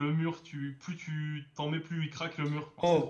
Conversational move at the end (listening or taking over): taking over